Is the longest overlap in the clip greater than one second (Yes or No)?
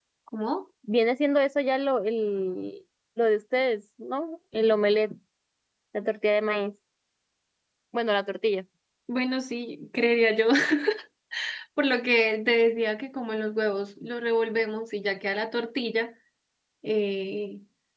No